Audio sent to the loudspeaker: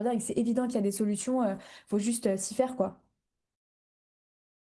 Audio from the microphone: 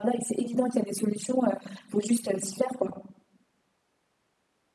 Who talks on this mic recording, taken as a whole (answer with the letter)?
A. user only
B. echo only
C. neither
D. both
B